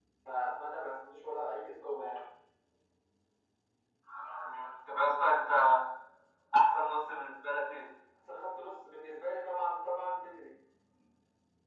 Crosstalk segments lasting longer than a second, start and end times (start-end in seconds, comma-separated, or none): none